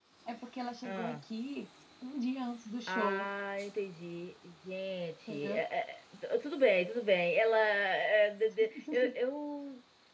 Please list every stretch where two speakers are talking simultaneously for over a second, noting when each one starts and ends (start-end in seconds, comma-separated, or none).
none